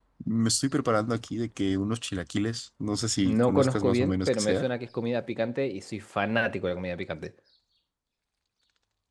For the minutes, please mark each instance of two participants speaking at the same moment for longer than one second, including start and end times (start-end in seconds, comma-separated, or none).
3.2-4.7